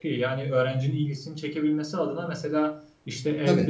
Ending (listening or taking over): listening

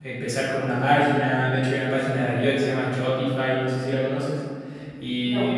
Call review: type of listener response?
listening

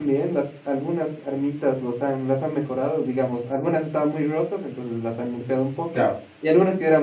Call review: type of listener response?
listening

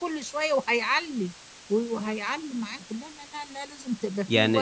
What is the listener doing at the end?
taking over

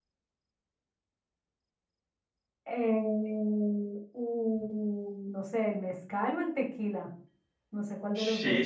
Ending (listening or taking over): taking over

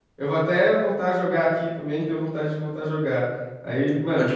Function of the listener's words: listening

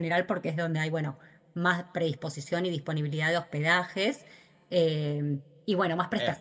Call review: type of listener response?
listening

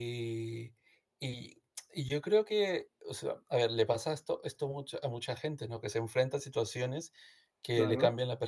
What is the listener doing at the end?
listening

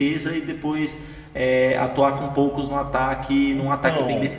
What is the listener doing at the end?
taking over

